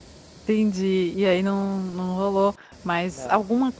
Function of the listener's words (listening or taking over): listening